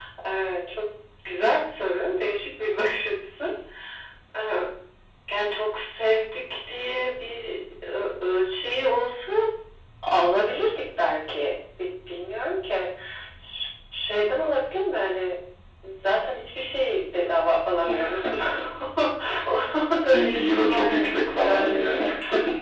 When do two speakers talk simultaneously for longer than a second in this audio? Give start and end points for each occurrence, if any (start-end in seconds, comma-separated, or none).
20.1-22.1